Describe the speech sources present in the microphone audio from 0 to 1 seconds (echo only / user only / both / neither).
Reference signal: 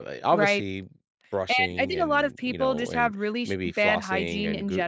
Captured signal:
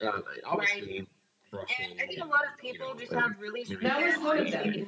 echo only